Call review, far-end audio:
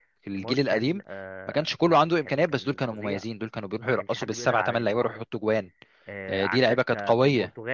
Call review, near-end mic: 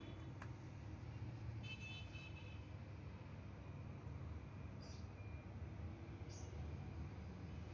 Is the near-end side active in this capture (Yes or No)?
No